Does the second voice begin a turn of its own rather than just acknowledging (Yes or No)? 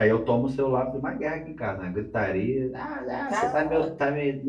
No